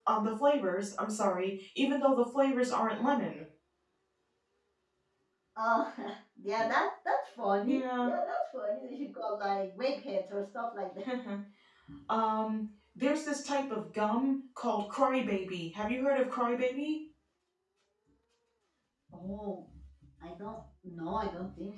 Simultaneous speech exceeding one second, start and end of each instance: none

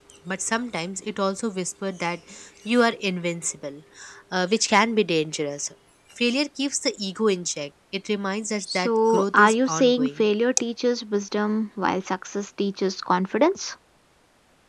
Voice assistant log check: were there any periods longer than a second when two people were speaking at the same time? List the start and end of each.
8.7-10.3

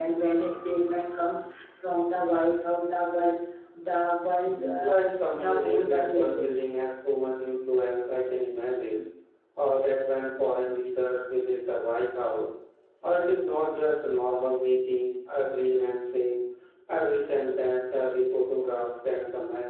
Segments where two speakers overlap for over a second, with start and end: 4.8-6.5

